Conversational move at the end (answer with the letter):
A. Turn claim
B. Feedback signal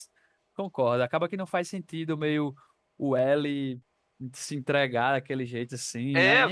A